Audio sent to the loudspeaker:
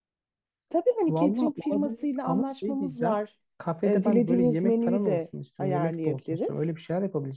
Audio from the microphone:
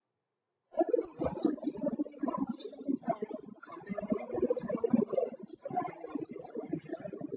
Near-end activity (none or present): none